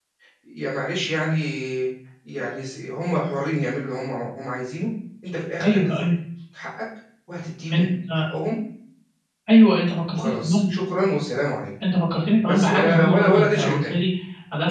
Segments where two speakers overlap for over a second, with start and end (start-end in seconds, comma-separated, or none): 12.5-13.9